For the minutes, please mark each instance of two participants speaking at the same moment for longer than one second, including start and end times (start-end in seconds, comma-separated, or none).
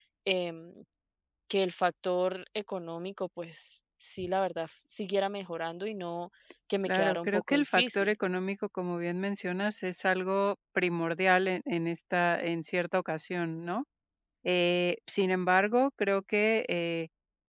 6.9-8.1